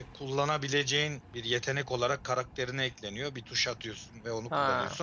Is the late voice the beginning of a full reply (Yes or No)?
No